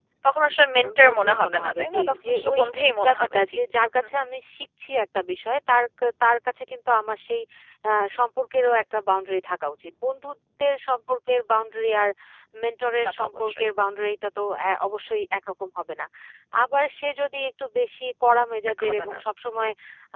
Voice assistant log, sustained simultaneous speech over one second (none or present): present